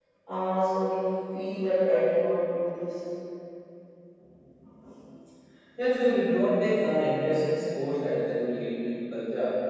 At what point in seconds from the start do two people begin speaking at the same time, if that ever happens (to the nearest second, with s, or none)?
none